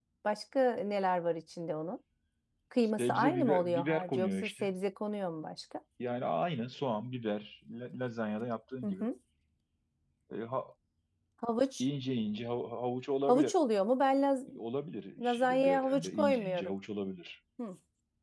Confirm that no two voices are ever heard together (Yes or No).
No